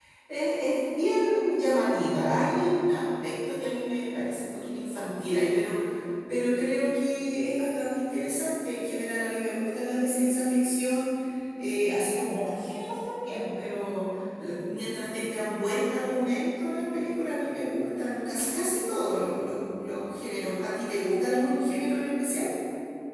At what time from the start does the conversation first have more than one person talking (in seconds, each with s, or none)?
none